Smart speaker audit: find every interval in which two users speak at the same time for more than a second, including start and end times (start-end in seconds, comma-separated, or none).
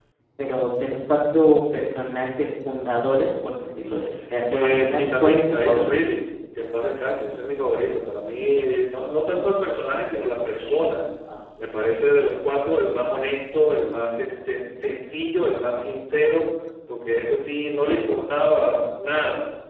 4.5-5.9